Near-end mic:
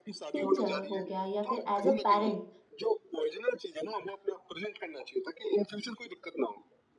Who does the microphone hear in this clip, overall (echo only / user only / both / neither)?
both